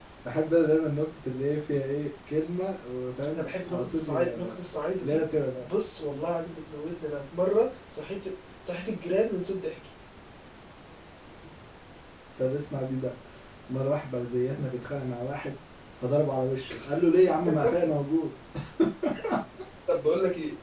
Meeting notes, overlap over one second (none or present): present